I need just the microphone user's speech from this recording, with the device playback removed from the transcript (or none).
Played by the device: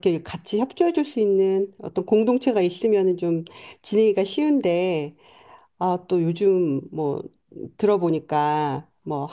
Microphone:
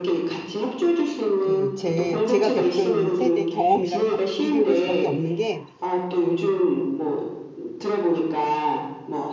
그 제 제가 겪은 세대 경험이랑 다 비교해 볼 수밖에 없는 게